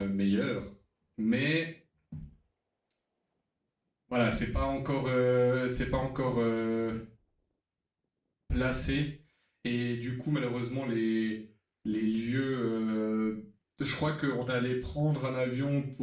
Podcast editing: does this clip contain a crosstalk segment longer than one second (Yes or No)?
No